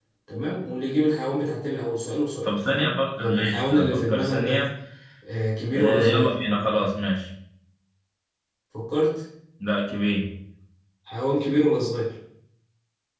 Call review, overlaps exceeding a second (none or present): present